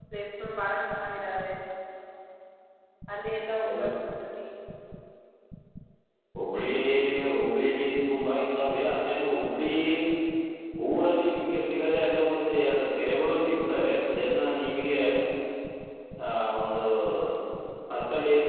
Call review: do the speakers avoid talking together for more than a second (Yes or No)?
Yes